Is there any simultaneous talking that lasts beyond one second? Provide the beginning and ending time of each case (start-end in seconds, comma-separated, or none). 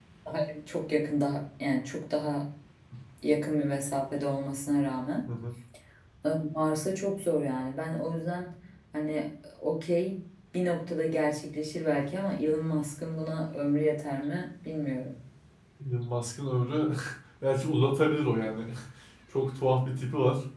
none